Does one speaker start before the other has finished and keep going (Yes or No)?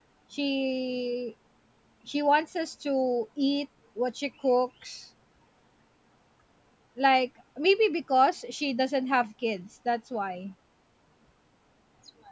No